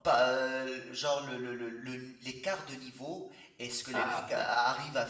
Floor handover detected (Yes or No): No